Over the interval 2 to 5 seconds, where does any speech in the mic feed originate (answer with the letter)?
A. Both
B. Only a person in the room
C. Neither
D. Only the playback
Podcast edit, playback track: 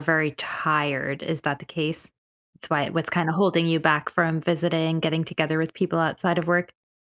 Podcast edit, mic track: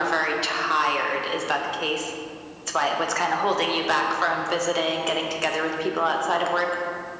D